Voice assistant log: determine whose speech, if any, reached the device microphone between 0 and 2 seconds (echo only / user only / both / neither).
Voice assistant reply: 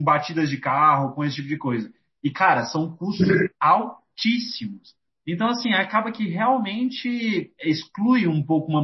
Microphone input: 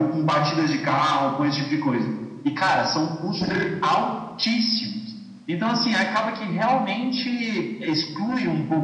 echo only